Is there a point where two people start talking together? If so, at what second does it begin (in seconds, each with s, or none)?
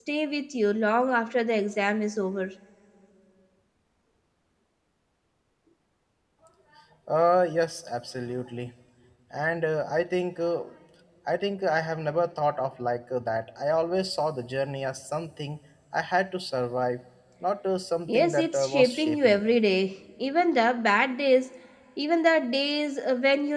18.1 s